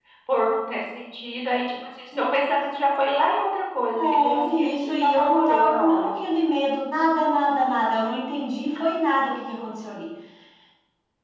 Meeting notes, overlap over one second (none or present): present